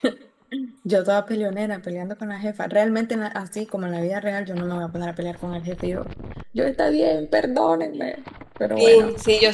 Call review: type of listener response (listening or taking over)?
taking over